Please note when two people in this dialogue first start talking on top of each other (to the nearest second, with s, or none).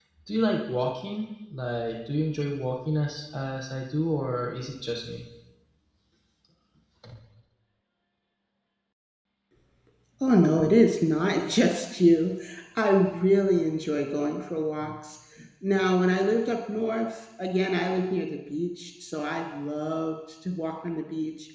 none